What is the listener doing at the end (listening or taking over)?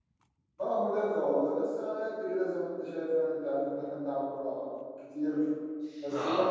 listening